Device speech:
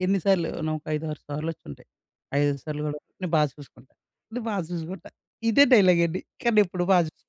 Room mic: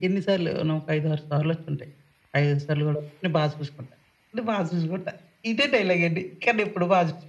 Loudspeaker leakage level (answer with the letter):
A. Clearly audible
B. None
A